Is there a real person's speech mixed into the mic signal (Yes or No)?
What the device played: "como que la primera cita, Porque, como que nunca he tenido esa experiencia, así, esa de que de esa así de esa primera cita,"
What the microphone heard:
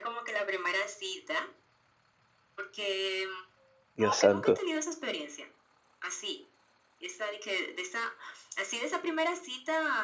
Yes